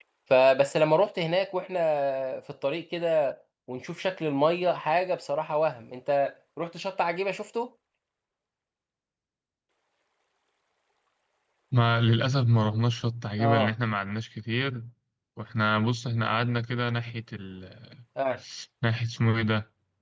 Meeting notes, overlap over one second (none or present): none